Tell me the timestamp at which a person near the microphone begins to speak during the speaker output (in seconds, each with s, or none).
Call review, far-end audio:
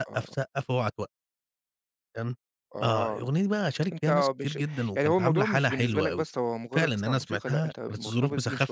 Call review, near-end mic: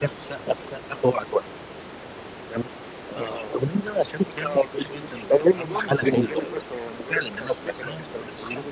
none